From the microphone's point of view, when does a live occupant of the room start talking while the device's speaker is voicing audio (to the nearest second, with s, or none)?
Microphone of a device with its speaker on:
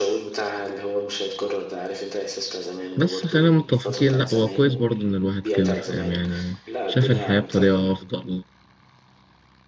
3 s